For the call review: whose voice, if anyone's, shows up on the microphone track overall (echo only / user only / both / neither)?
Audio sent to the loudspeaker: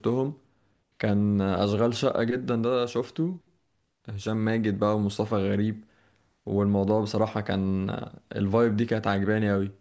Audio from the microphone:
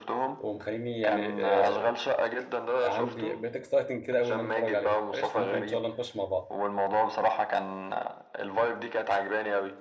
both